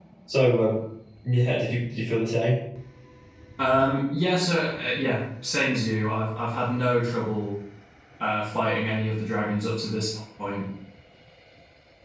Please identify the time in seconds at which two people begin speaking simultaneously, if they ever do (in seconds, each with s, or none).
none